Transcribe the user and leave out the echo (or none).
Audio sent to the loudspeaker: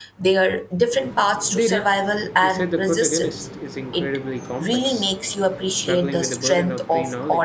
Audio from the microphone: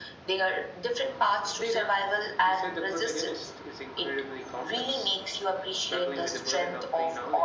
none